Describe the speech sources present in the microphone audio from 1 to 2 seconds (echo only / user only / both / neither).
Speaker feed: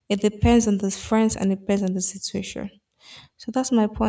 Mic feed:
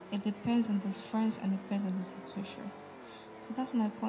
echo only